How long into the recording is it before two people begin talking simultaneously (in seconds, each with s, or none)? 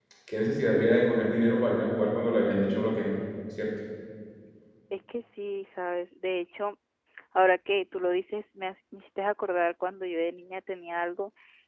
none